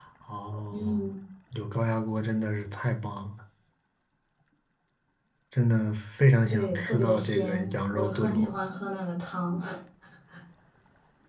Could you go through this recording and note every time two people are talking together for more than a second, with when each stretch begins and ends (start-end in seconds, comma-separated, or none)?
6.5-8.5